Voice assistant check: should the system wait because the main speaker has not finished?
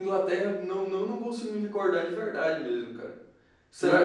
No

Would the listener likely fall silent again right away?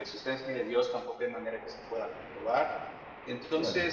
Yes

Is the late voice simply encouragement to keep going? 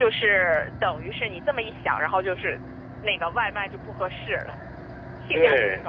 No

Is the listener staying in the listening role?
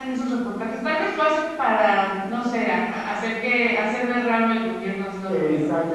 No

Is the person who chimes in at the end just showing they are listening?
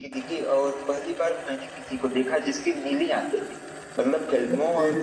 Yes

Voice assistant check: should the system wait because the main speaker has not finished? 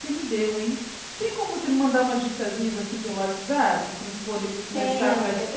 No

